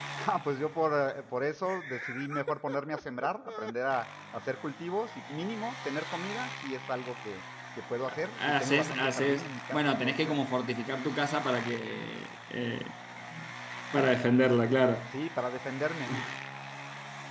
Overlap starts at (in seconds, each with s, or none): 8.4 s